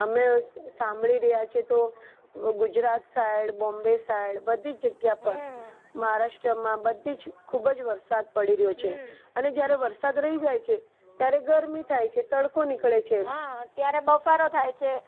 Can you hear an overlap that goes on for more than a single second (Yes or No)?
No